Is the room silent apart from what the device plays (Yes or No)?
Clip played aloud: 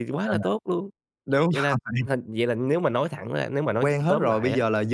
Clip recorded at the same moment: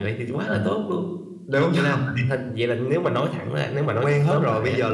Yes